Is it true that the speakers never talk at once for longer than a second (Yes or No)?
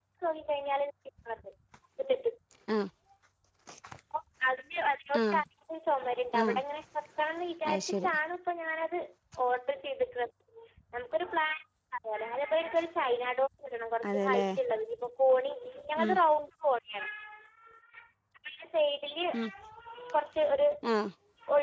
Yes